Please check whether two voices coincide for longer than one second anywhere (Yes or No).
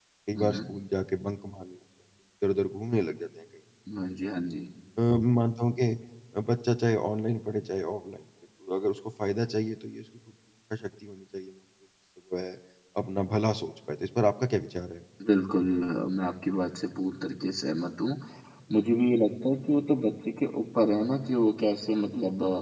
No